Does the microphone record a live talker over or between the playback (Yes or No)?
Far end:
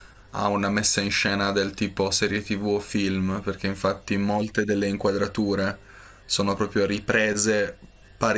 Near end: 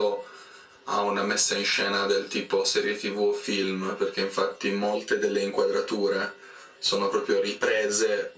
No